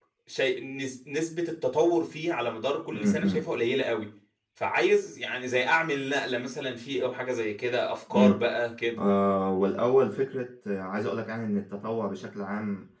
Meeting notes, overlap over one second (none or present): none